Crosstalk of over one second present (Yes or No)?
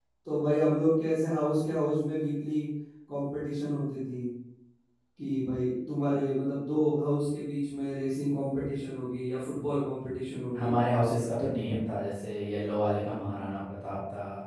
No